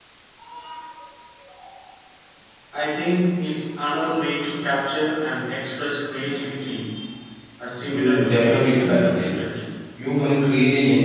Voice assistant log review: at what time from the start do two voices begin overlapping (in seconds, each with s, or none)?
7.8 s